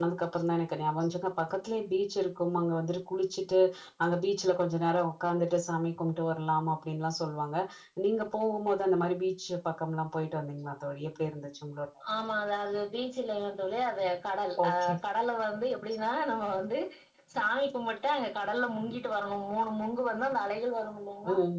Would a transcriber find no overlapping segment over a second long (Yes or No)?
Yes